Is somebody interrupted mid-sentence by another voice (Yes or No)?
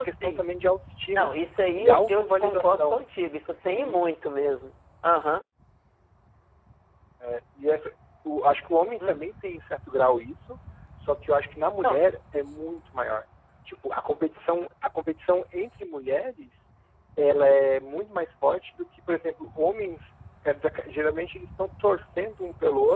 Yes